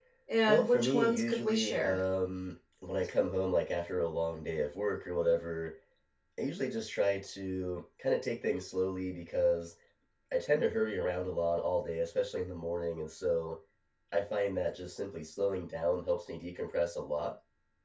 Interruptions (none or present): present